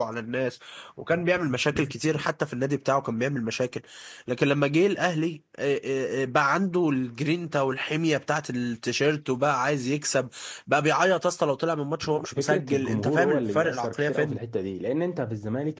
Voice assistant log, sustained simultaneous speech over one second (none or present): present